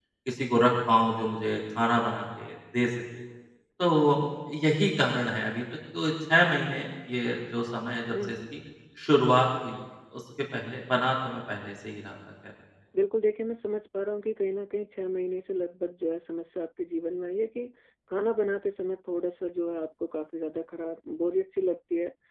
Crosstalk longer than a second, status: none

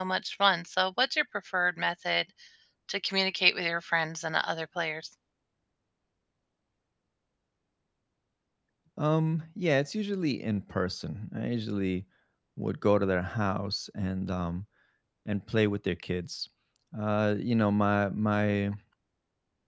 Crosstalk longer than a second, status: none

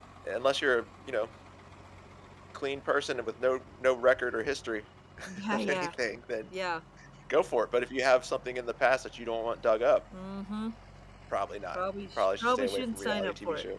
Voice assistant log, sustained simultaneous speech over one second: present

